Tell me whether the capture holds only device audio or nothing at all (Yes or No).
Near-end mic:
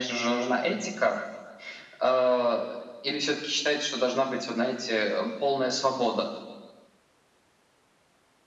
Yes